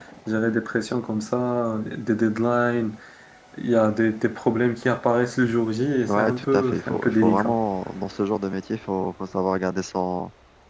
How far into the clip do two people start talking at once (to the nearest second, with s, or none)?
6 s